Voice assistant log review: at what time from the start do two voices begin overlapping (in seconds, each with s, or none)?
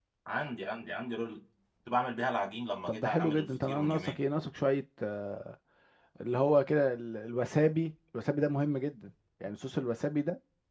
2.9 s